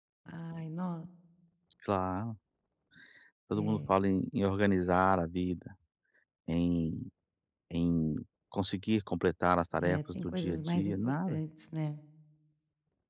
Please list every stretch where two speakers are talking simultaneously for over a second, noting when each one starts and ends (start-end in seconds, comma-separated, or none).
9.8-11.4